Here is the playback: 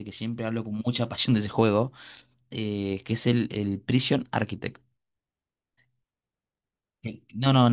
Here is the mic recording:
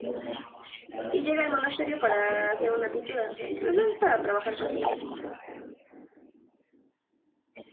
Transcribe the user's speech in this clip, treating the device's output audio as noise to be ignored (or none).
y llega al monasterio para hacer una pintura, o sea, pues es para trabajar prácticamente.